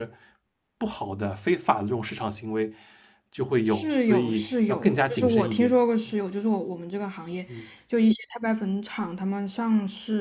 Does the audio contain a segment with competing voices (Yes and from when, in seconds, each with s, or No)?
Yes, from 3.7 s